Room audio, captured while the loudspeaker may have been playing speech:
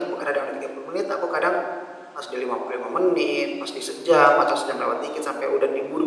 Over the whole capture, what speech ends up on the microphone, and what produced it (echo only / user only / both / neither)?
echo only